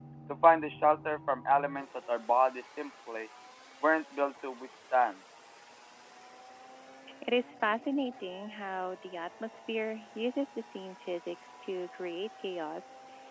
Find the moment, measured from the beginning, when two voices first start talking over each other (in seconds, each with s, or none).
none